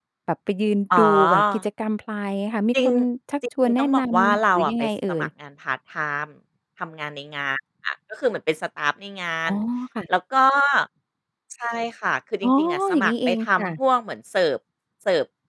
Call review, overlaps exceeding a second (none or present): present